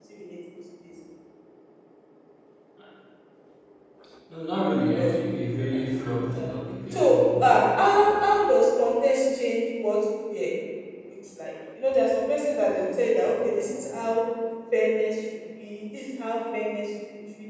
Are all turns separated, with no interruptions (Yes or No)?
No